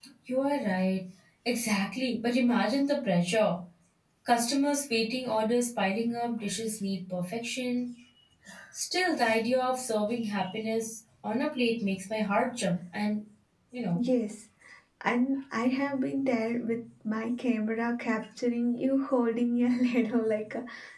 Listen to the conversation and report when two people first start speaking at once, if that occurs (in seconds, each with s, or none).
none